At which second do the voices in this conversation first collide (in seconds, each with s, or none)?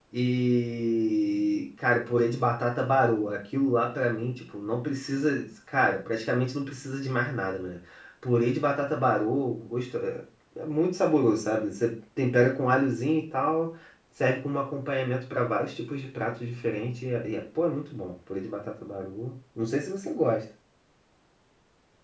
none